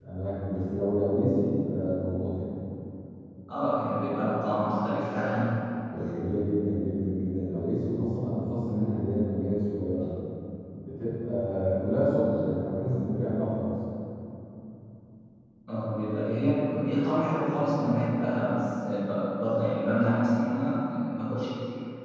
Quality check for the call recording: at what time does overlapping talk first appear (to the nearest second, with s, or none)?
none